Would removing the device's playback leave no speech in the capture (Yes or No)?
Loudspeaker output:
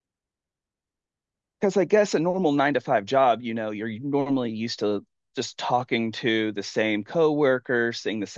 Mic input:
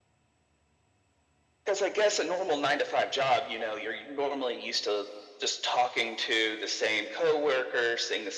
Yes